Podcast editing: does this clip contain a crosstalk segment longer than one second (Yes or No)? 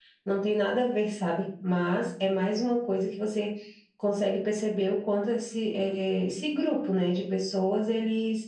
No